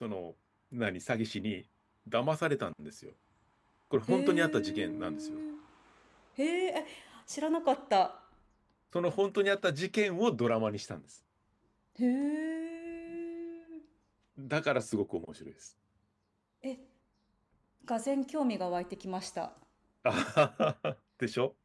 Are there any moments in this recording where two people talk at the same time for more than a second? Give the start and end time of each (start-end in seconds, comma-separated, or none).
4.1-5.4